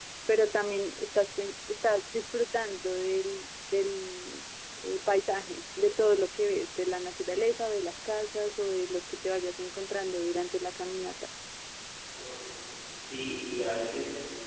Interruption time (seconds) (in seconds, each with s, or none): none